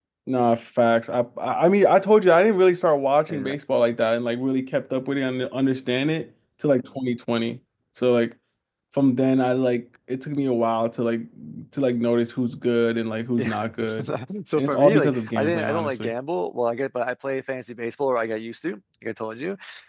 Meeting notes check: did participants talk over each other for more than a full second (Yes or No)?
Yes